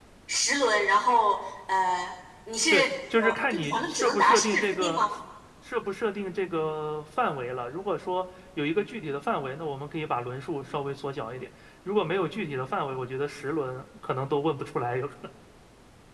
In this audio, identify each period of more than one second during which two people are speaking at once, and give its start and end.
3.2-5.0

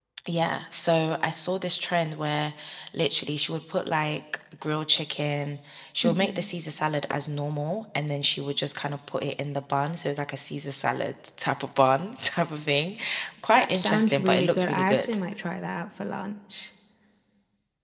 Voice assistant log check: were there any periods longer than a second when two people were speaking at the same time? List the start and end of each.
13.6-15.1

